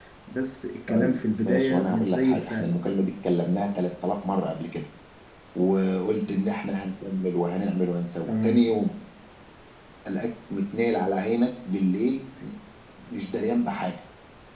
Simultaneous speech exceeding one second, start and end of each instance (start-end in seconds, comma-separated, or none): 0.9-2.8